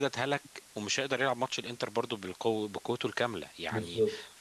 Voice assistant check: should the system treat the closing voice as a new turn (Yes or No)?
No